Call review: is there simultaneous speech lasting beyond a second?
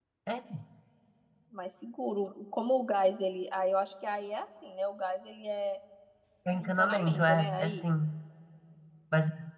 Yes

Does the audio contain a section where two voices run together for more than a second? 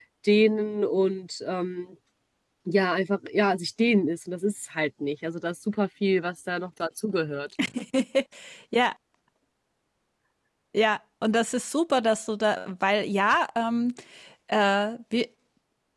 No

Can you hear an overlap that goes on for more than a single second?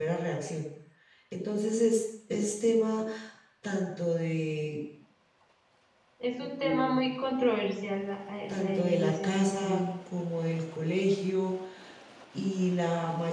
Yes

